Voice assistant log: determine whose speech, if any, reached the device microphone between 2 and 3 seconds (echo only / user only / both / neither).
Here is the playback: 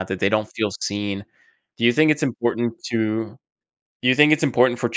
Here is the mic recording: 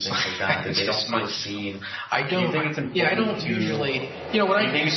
both